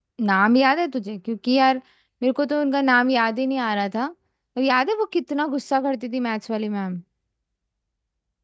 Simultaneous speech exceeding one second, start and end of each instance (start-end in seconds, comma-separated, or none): none